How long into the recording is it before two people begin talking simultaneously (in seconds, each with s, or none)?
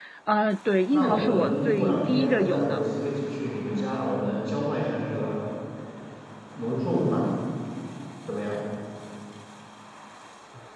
0.9 s